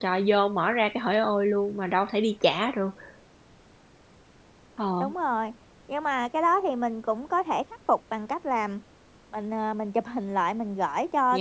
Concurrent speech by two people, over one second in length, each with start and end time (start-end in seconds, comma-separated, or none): none